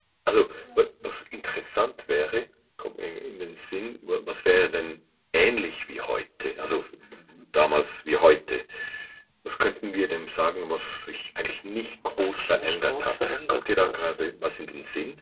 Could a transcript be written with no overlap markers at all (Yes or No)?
No